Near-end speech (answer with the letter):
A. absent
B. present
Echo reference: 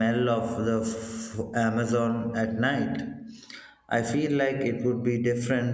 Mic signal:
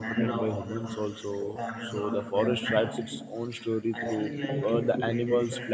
B